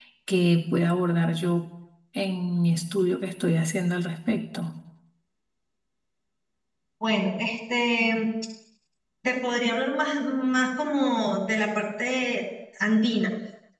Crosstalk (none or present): none